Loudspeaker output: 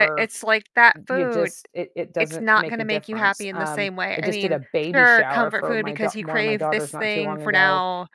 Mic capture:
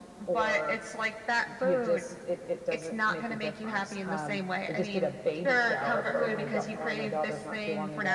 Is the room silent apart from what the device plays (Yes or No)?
Yes